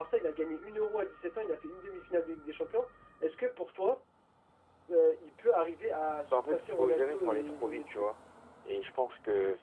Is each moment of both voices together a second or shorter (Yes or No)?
No